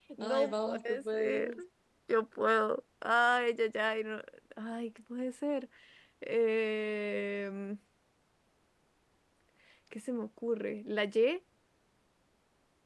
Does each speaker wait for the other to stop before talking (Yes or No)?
No